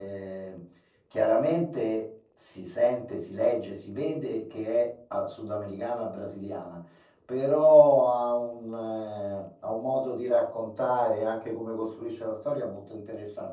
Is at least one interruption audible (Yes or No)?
No